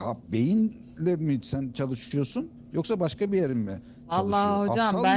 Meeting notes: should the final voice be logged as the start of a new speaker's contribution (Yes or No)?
Yes